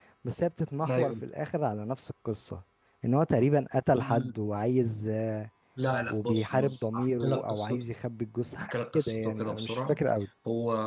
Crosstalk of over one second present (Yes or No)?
Yes